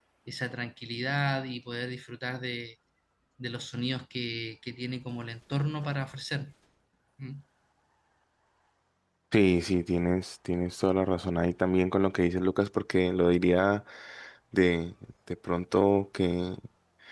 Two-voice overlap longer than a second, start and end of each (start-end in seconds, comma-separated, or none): none